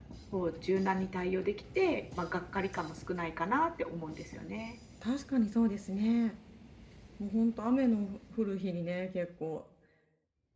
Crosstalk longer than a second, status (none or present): none